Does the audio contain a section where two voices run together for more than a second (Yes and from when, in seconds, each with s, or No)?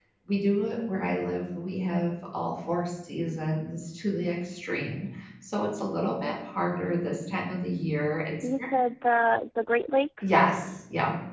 No